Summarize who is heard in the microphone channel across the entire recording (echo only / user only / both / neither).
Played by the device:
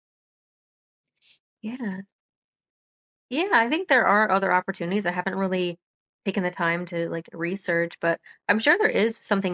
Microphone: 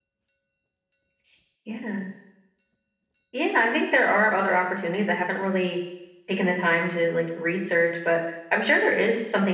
echo only